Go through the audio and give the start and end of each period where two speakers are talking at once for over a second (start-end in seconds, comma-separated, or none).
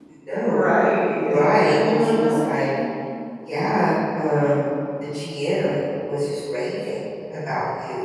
1.1-2.7